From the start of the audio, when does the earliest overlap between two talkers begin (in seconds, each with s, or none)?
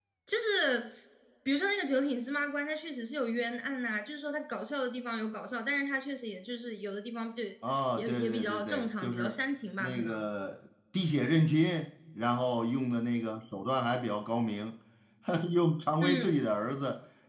8.0 s